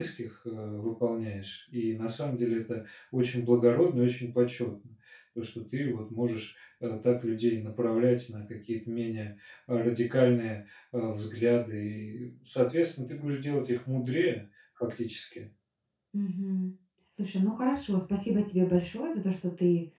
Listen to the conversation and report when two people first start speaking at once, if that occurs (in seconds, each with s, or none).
none